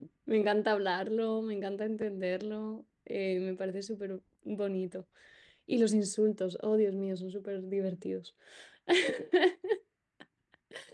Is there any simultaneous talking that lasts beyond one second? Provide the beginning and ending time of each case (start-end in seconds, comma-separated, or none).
none